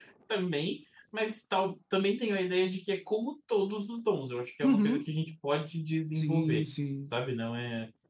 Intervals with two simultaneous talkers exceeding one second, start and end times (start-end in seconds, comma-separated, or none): none